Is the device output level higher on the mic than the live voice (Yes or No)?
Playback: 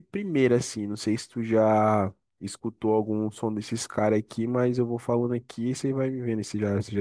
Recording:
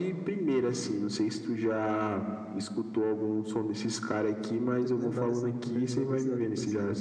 Yes